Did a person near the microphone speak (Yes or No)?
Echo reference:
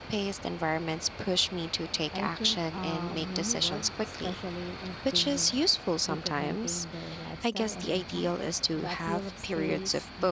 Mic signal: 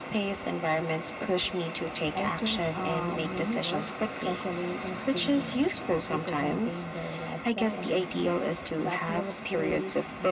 No